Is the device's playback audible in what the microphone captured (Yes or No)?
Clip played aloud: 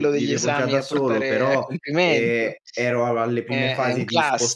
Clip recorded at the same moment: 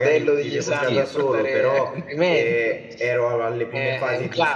Yes